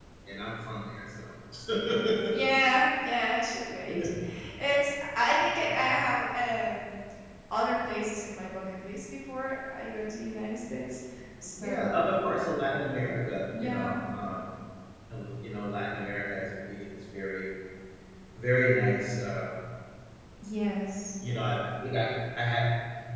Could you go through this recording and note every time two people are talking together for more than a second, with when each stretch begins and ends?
none

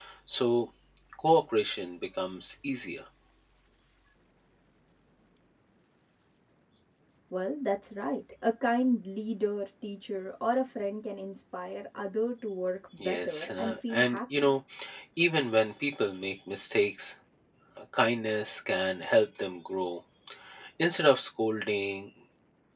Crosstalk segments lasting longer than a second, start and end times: 13.0-14.5

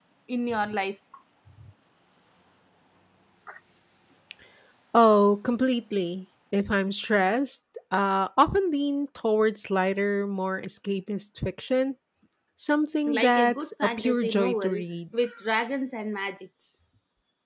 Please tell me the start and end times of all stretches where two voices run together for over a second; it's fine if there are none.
13.1-14.8

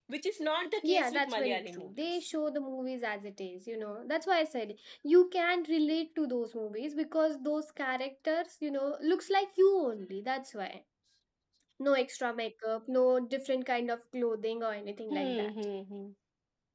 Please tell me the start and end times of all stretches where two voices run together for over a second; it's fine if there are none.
0.8-2.1

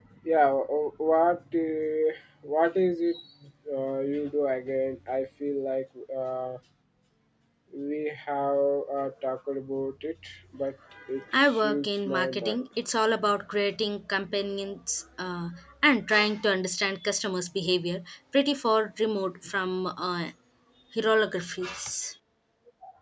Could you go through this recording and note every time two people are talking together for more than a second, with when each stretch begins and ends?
11.4-12.6

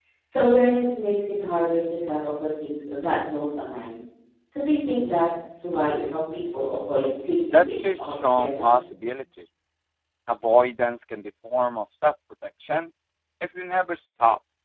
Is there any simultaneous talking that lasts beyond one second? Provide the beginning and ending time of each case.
7.5-8.8

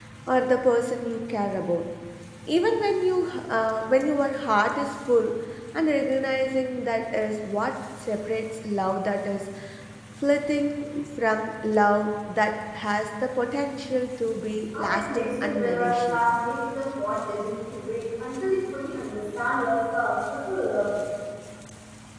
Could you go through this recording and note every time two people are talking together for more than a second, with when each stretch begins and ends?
14.8-16.2

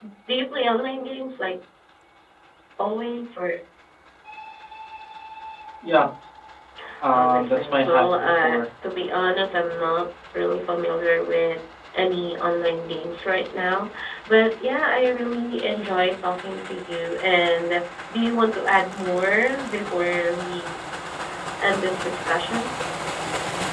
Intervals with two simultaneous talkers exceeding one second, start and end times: 7.1-8.6

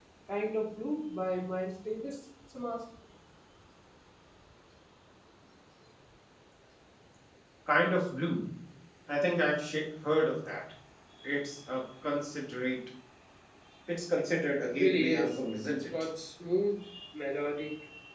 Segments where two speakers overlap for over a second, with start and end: 14.7-15.9

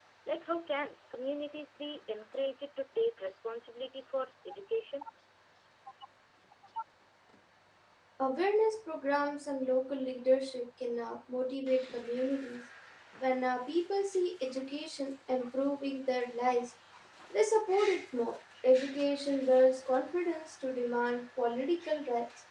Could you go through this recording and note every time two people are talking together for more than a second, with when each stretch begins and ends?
none

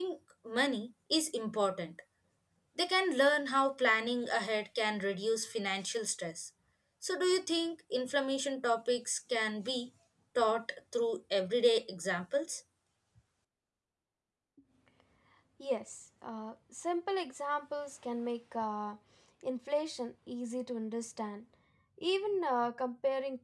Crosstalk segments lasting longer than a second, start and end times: none

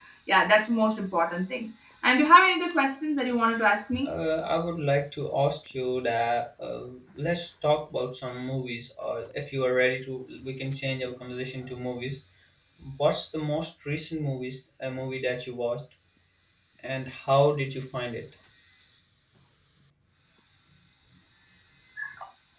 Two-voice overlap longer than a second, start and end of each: none

